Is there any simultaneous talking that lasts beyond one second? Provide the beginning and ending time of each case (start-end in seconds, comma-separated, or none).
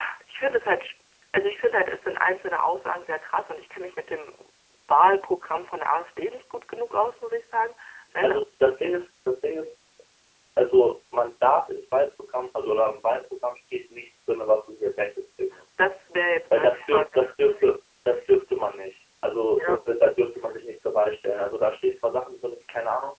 16.6-17.8